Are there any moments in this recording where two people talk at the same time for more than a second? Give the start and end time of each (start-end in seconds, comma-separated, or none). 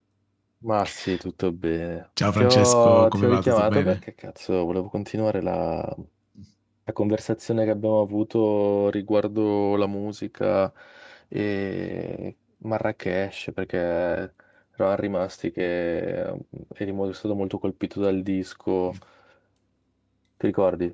2.4-4.0